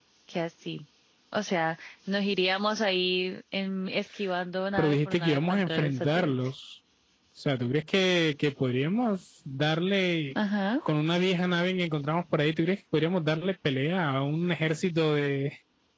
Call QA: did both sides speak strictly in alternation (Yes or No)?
No